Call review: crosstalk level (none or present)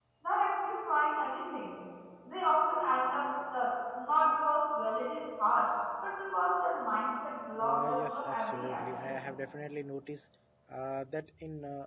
present